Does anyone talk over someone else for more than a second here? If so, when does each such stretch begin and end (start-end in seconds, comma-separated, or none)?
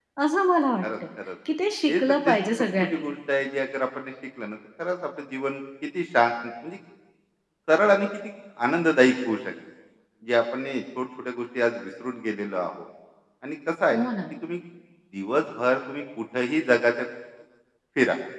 1.9-3.1